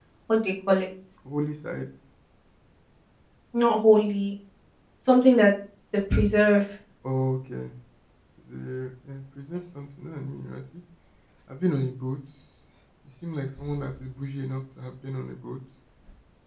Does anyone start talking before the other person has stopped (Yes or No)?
No